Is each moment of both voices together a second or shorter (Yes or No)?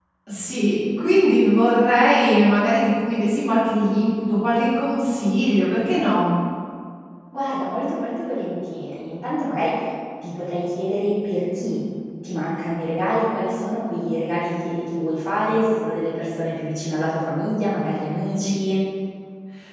Yes